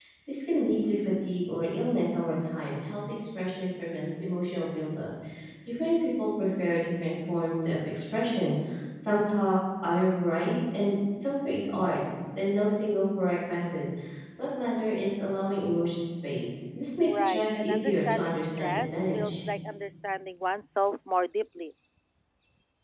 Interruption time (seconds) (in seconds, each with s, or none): 17.1 s